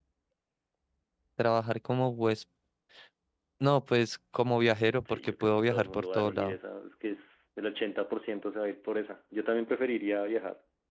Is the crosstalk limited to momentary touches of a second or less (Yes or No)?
No